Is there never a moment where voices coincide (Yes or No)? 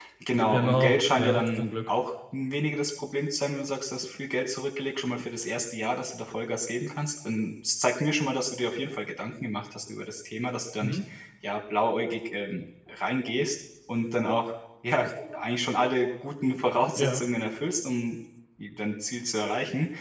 No